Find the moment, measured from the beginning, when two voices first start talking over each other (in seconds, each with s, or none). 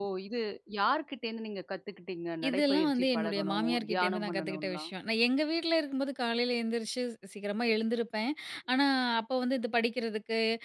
2.4 s